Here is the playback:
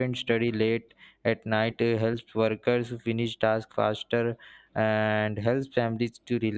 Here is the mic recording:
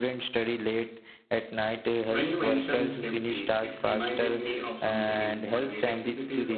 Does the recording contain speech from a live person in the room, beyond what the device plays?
Yes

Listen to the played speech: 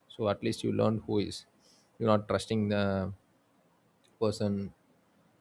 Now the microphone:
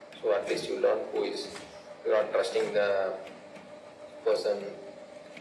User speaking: No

